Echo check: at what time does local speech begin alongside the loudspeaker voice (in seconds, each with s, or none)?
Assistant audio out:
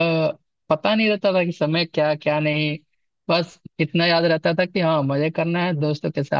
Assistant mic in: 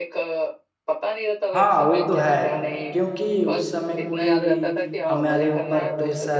1.5 s